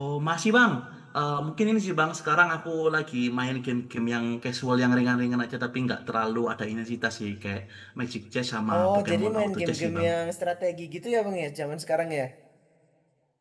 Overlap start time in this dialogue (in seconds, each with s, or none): 8.8 s